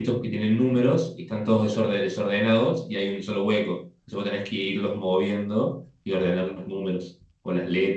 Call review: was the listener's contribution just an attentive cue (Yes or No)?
No